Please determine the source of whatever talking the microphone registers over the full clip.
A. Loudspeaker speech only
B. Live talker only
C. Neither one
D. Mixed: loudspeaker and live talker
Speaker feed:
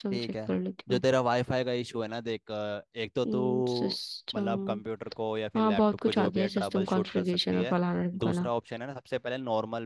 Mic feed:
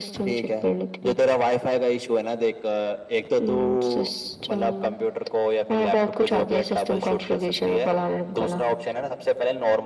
A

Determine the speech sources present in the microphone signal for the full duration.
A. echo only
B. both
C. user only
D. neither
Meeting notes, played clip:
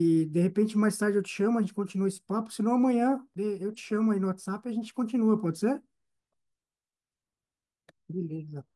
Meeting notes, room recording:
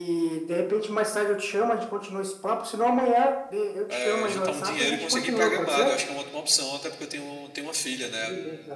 B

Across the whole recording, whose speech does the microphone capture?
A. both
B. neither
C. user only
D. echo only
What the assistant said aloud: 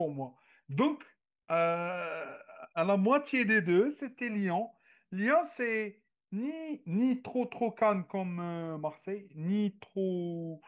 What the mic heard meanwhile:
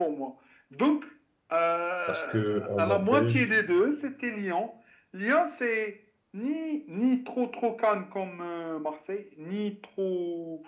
A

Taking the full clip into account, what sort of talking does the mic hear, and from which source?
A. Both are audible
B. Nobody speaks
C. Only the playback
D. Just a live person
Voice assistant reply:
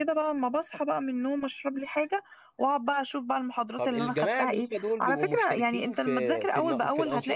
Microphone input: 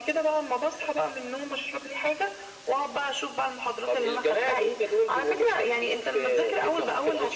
C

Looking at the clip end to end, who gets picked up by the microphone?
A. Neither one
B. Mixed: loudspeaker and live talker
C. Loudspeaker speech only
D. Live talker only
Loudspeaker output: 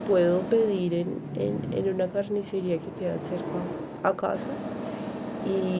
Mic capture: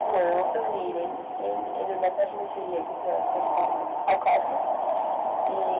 C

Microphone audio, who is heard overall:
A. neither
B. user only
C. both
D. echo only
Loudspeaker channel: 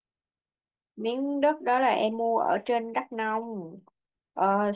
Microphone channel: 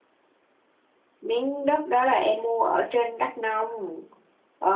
D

